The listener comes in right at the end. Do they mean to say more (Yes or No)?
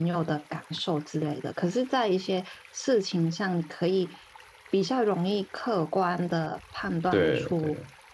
No